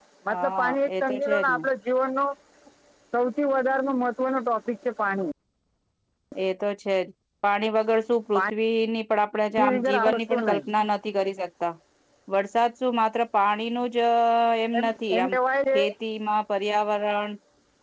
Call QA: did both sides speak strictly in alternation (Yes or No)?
No